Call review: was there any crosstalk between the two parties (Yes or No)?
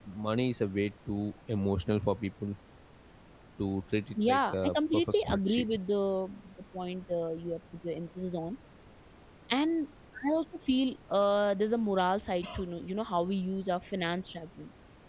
Yes